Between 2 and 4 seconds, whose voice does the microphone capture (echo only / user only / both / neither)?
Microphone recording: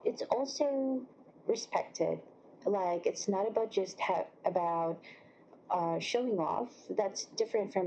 echo only